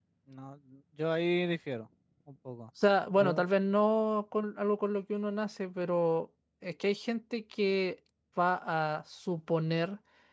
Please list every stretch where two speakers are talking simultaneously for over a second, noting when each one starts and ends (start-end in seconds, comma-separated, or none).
none